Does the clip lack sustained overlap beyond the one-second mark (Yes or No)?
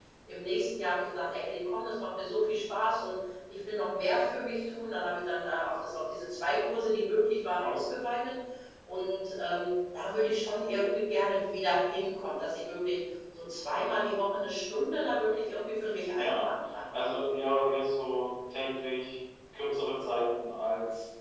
Yes